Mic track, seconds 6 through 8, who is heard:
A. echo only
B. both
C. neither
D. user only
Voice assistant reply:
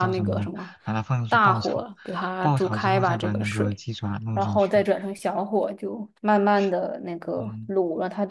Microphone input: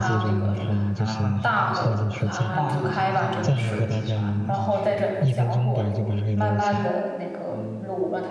B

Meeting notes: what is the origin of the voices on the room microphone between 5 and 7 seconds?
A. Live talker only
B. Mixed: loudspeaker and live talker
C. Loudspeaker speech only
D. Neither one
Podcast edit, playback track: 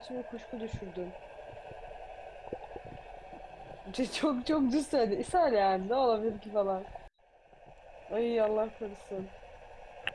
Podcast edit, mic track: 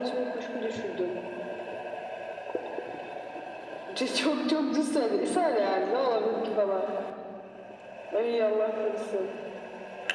C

